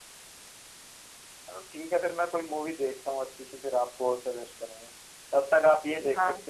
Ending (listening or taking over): listening